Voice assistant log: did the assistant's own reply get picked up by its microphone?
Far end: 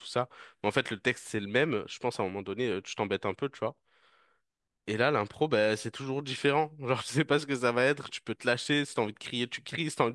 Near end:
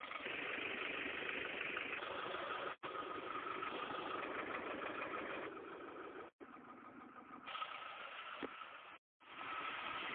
No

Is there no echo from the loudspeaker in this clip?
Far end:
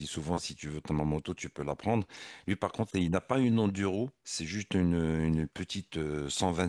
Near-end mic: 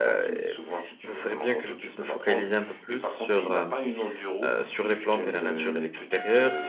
No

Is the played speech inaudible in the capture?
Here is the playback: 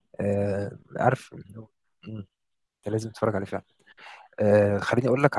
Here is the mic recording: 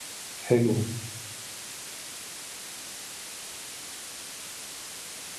Yes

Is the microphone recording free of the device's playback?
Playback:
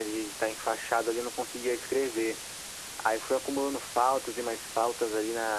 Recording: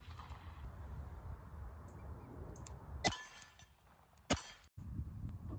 Yes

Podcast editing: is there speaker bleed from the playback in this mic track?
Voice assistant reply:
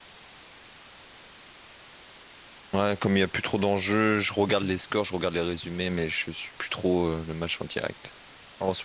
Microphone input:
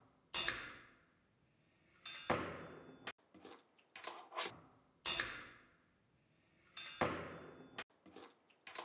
No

